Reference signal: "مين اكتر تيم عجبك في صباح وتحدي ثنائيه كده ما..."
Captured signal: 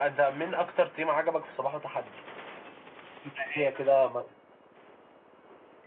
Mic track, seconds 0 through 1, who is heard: echo only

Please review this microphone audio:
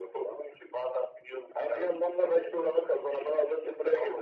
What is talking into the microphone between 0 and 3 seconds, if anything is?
echo only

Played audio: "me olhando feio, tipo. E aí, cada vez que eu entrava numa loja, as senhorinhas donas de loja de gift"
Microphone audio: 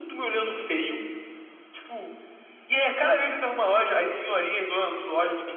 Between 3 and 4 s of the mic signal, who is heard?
echo only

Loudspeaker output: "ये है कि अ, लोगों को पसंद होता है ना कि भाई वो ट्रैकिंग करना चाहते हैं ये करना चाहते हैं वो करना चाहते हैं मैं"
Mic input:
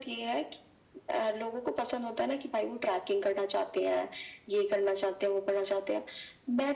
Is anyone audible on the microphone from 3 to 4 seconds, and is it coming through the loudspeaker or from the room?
echo only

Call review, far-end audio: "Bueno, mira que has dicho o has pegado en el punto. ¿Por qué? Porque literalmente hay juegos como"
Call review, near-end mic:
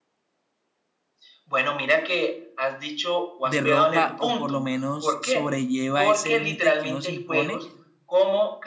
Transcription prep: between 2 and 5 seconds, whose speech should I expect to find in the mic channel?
both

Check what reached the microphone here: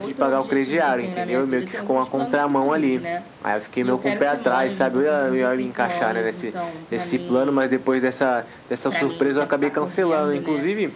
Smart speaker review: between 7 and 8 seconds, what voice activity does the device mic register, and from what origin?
both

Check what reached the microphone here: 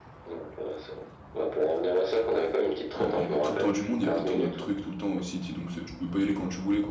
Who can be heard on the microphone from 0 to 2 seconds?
echo only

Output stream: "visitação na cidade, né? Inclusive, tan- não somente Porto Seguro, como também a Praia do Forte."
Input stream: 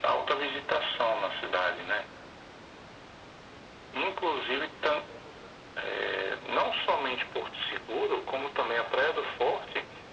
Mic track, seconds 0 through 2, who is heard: echo only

